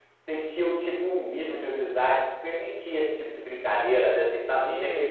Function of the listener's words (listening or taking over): taking over